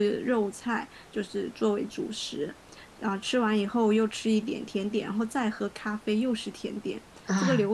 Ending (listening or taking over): listening